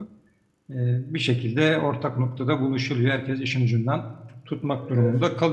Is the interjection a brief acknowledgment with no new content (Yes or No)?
Yes